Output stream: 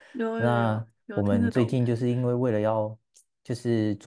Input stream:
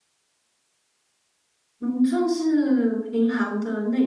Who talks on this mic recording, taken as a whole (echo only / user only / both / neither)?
user only